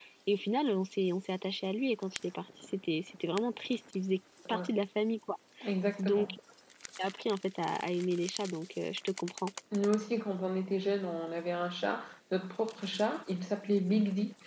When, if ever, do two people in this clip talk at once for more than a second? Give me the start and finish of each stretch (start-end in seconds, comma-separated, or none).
none